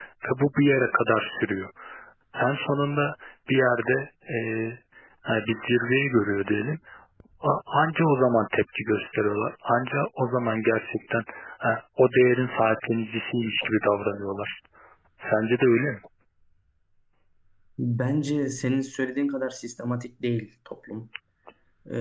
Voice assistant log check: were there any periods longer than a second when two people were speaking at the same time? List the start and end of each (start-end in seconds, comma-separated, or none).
none